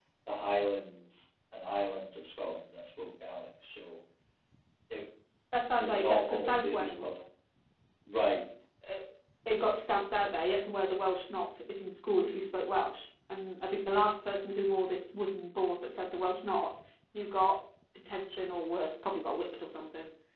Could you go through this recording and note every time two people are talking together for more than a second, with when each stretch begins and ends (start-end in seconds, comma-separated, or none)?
5.7-7.1